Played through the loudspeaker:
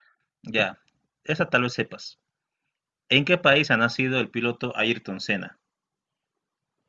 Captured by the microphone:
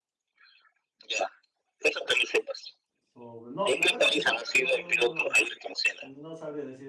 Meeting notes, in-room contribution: present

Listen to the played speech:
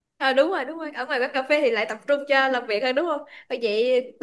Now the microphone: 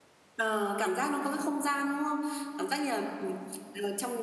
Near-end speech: present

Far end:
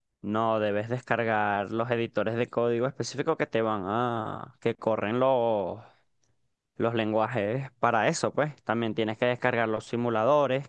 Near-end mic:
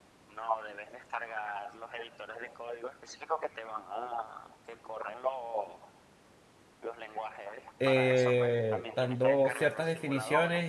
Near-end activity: present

